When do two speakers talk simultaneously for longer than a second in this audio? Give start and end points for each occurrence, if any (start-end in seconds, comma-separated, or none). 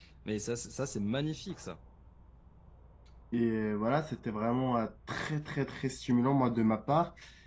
none